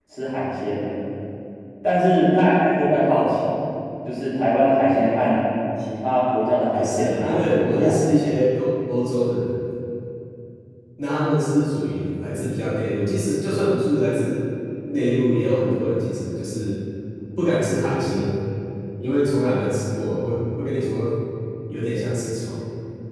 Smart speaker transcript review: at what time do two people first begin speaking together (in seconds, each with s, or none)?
6.7 s